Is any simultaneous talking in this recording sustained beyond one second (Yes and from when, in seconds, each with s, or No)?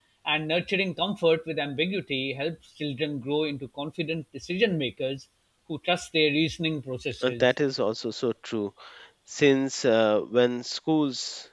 No